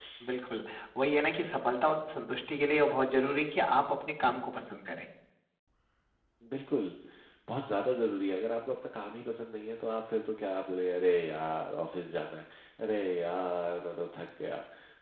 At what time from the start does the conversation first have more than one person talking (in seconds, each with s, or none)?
none